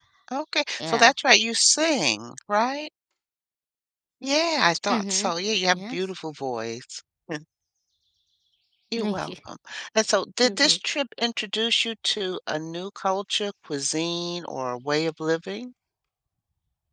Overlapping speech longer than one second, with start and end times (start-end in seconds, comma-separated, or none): none